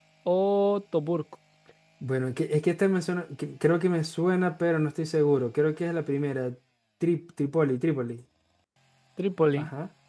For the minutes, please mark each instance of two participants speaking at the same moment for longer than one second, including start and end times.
none

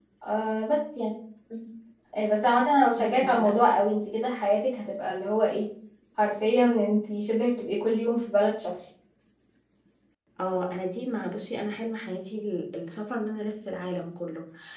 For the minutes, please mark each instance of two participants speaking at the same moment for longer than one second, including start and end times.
none

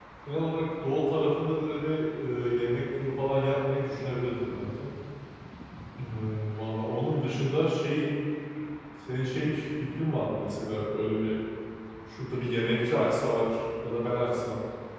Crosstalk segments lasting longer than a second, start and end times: none

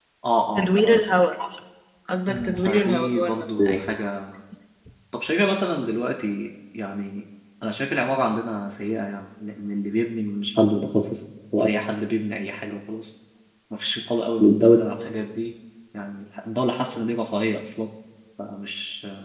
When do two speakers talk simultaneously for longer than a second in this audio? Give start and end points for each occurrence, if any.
2.3-3.9

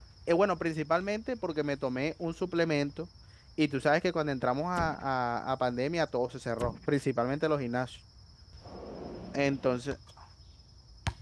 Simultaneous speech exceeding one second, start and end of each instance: none

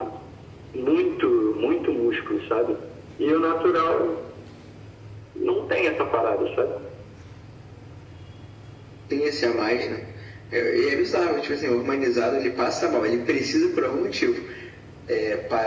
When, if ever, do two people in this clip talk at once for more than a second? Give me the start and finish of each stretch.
none

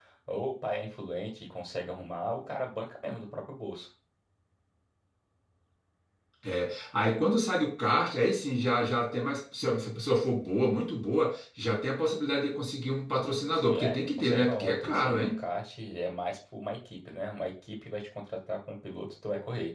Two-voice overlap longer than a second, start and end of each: 13.5-15.3

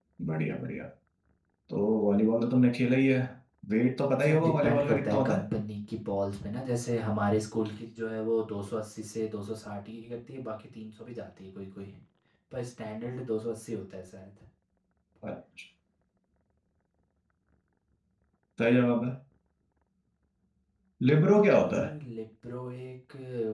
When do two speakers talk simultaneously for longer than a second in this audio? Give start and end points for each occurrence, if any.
4.2-5.4

